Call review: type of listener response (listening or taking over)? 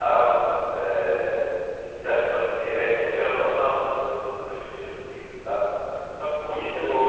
taking over